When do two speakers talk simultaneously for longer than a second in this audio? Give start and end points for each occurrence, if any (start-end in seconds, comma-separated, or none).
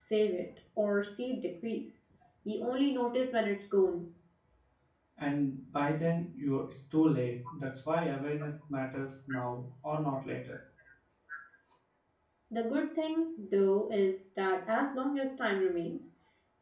none